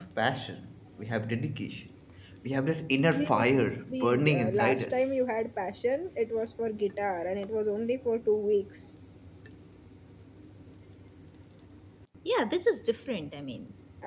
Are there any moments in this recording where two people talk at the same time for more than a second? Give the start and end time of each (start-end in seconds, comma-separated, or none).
3.1-5.0